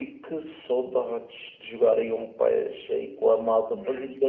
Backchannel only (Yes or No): Yes